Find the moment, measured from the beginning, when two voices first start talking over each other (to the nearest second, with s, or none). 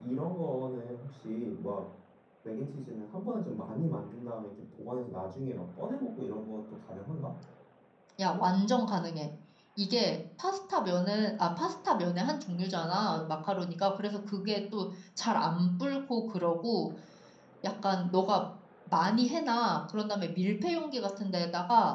none